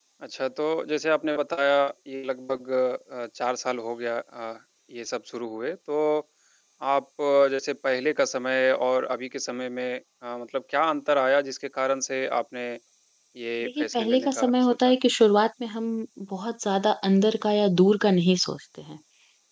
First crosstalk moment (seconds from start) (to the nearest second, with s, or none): 14 s